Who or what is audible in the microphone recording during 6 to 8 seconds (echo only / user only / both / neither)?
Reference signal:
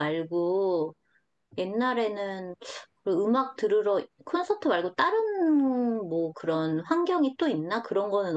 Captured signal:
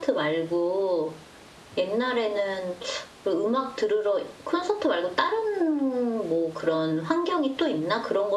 echo only